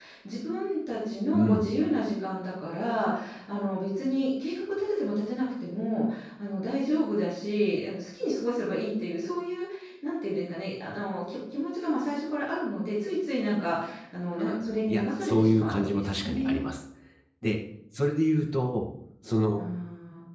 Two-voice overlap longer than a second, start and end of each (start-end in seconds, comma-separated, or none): 14.9-16.6